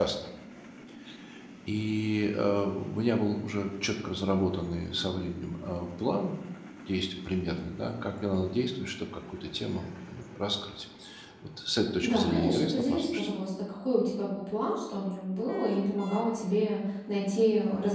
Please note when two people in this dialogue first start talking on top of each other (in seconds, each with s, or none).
12.0 s